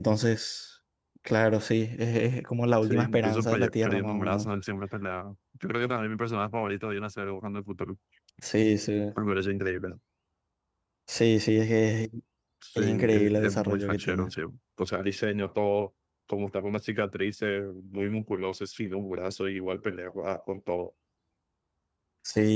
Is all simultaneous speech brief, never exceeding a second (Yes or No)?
No